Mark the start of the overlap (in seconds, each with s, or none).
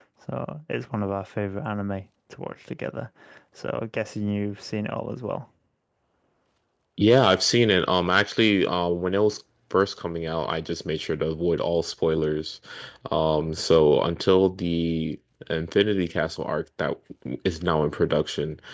none